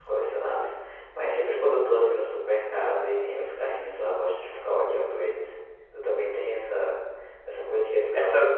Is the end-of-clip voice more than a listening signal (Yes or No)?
No